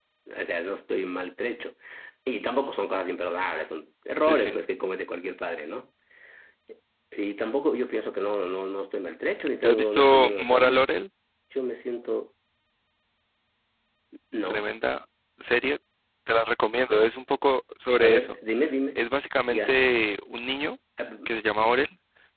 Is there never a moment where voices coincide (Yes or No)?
No